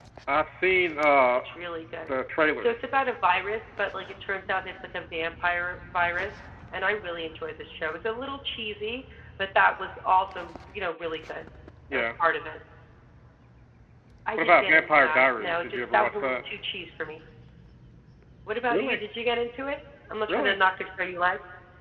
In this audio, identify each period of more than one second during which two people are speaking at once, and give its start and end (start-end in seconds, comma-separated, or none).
14.4-16.4